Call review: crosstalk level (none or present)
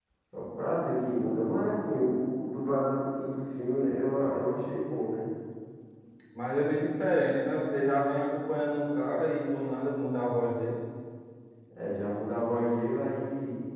none